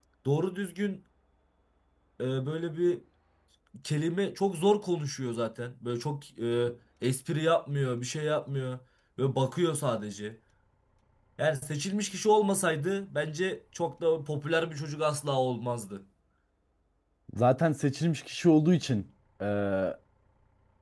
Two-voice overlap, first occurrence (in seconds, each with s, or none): none